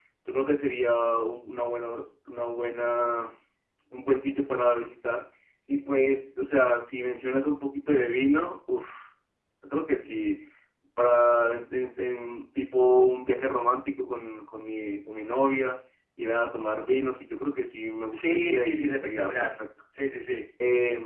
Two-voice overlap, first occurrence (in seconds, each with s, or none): 18.1 s